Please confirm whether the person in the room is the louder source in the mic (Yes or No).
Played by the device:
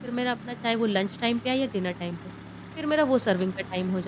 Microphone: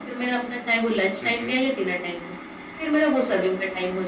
No